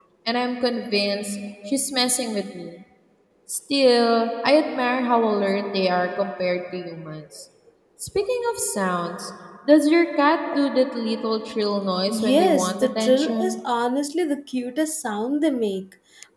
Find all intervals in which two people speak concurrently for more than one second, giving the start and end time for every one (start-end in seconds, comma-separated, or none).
12.1-13.6